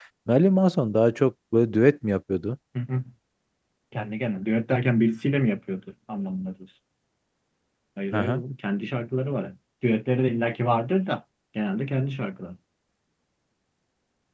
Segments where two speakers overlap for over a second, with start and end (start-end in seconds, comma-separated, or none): none